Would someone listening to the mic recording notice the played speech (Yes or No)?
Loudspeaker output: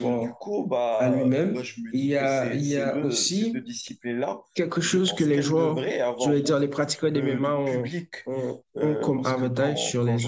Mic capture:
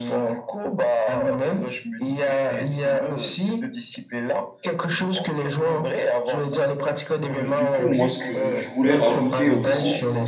Yes